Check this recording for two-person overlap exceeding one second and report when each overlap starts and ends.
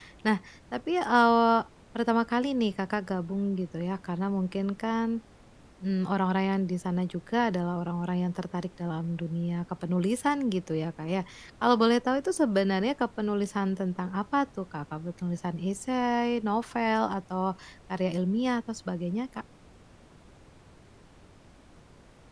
none

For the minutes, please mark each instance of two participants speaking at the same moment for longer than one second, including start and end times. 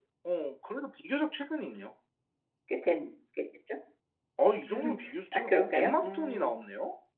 5.3-6.5

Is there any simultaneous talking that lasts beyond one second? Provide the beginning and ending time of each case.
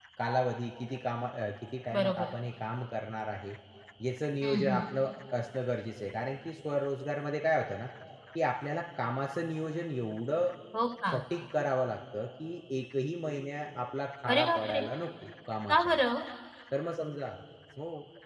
none

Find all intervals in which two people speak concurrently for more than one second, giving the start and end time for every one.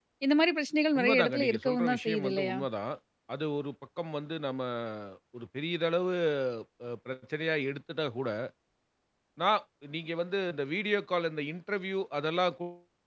1.0-2.6

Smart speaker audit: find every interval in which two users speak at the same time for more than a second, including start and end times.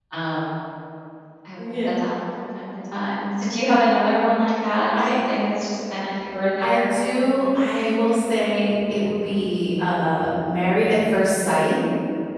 none

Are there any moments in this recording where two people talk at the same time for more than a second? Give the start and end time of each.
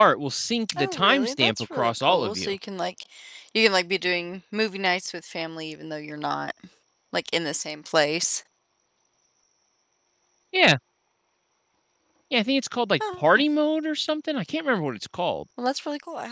0.8-2.5

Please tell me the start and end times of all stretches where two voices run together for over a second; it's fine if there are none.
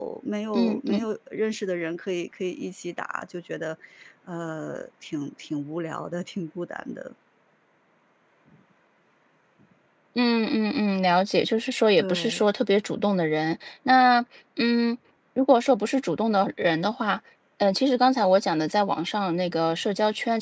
none

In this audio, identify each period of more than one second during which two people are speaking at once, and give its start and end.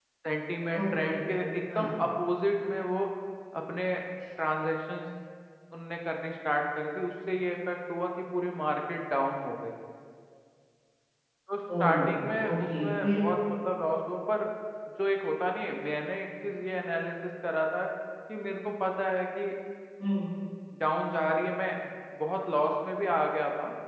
11.8-13.2

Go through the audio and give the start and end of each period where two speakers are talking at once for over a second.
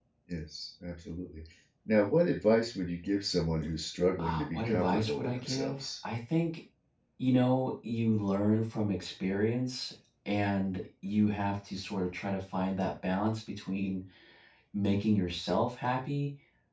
4.2-5.8

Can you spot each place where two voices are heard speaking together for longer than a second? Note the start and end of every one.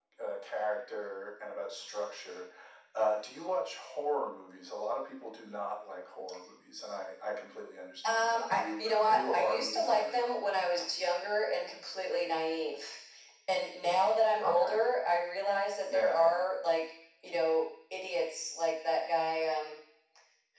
8.0-10.3

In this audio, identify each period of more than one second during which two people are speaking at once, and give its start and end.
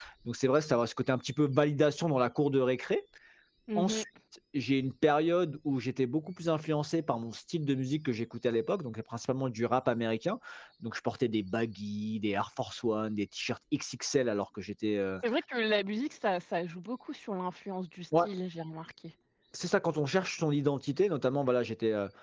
none

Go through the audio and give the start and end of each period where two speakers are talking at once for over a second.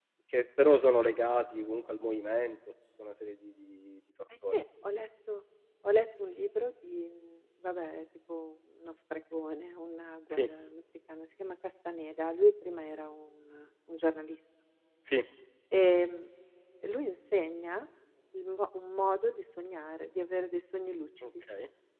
none

